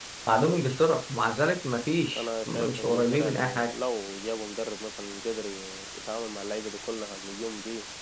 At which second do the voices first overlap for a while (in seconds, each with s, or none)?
2.1 s